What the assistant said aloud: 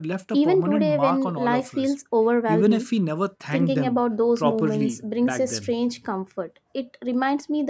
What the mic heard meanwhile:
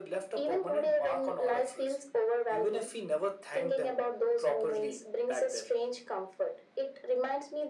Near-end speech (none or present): none